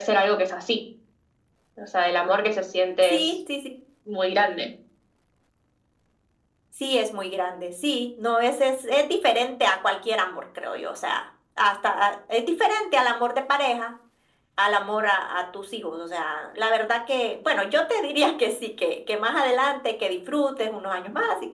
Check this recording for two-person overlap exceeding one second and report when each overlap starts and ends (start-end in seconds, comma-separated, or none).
none